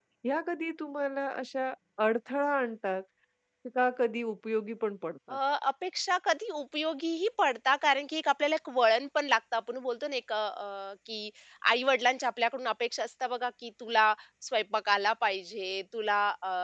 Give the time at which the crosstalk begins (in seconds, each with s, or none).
none